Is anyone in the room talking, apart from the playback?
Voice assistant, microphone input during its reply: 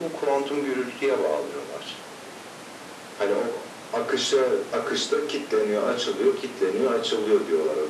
No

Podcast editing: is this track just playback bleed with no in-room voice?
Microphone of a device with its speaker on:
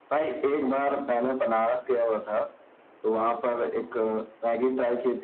No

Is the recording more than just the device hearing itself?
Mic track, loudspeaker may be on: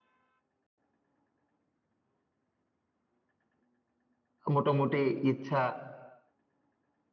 Yes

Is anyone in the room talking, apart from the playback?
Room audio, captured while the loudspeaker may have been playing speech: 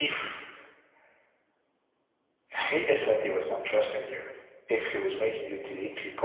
No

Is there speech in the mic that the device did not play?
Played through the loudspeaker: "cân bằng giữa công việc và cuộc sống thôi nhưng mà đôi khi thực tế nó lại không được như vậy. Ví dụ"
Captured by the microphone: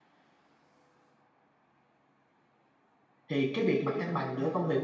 Yes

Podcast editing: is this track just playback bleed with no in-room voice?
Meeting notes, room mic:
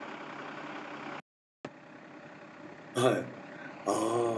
No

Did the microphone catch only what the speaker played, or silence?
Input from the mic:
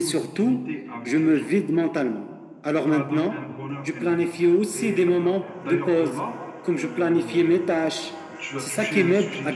No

